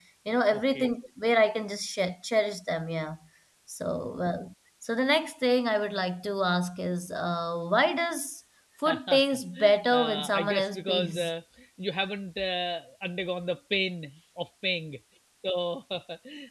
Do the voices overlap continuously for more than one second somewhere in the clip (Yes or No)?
Yes